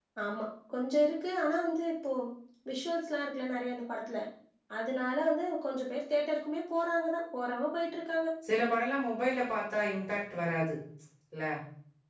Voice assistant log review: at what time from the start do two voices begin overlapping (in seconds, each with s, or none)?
none